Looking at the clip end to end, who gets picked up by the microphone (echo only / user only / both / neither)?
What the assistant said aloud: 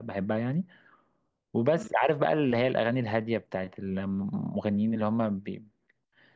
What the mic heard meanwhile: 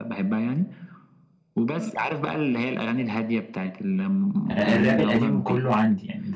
both